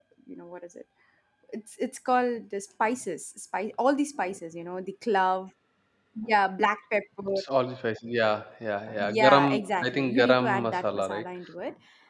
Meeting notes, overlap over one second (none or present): present